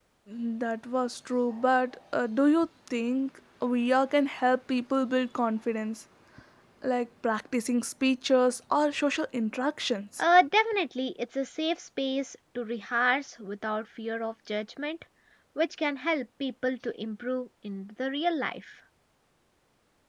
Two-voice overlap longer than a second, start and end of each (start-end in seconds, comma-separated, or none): none